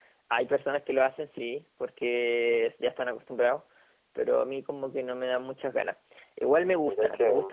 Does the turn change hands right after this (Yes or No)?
No